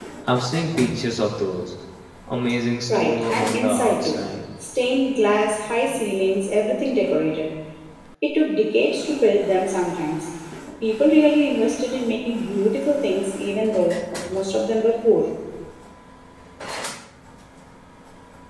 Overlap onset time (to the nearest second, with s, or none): 3 s